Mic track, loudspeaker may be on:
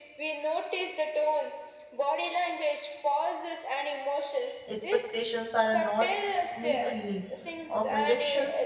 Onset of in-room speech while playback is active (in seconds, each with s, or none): 4.7 s